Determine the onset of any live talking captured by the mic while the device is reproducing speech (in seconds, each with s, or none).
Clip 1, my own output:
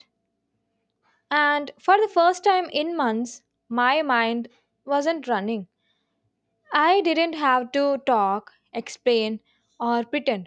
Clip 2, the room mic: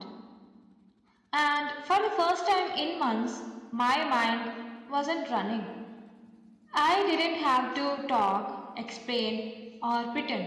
none